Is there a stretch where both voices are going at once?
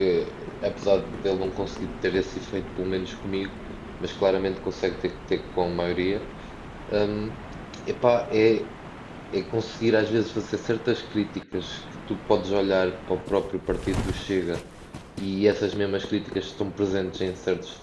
No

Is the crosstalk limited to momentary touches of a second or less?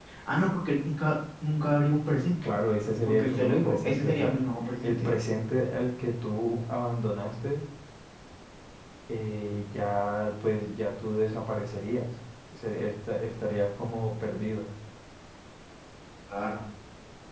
No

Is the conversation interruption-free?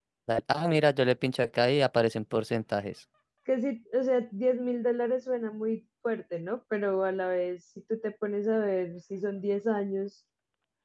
Yes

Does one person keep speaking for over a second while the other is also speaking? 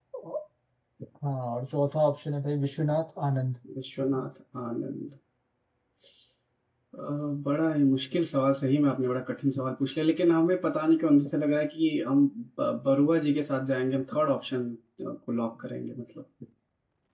No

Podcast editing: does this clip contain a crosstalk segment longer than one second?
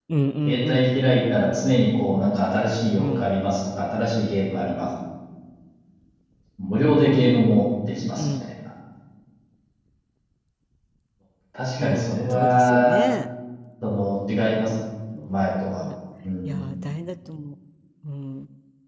Yes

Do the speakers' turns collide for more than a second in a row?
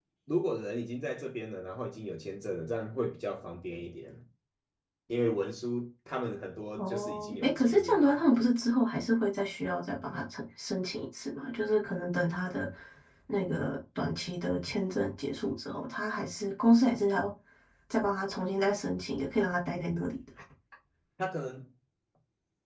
Yes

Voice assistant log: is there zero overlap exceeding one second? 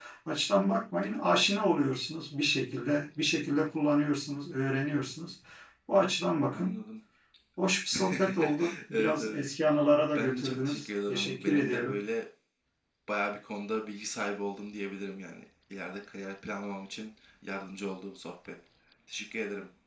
No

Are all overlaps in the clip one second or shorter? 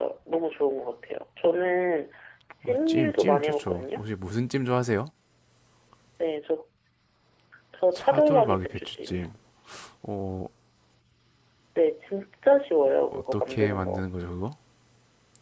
No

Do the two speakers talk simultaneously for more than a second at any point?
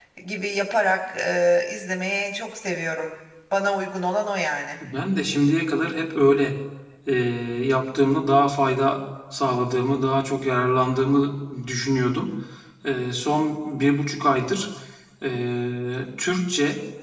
No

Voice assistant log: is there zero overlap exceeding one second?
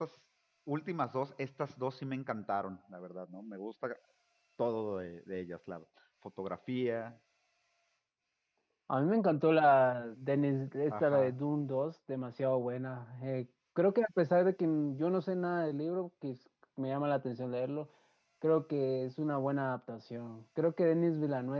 Yes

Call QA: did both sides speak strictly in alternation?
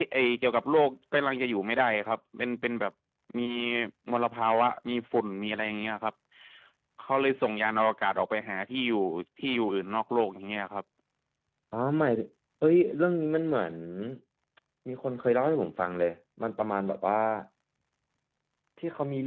Yes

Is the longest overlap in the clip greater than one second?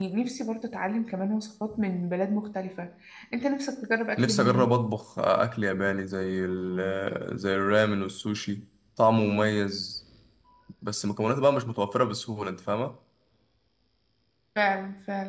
No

